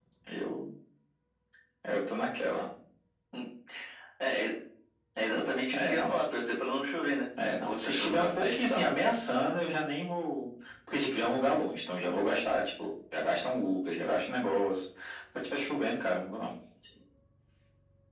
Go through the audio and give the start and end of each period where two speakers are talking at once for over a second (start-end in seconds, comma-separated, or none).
7.5-8.8